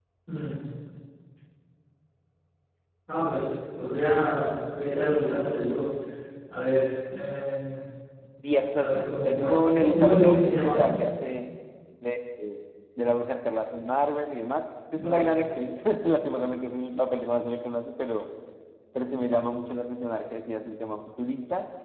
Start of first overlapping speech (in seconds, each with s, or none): 8.8 s